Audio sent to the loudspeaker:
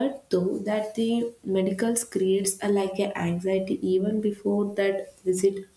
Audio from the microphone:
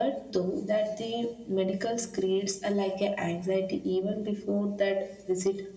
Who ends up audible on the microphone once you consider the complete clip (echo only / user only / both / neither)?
echo only